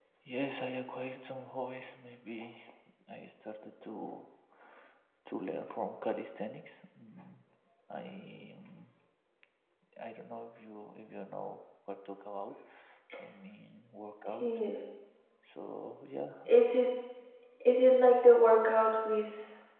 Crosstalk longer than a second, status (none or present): none